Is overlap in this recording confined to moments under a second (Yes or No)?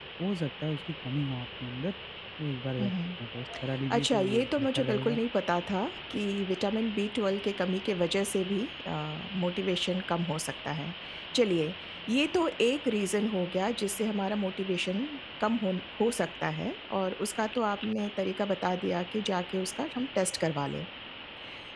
No